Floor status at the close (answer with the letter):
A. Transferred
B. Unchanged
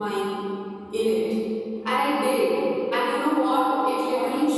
B